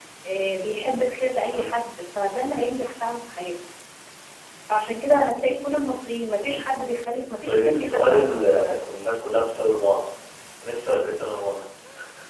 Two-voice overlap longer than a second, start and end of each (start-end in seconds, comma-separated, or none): 7.4-8.9